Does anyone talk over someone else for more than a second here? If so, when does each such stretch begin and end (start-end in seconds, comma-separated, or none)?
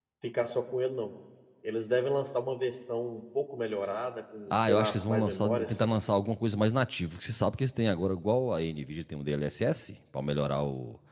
4.5-6.0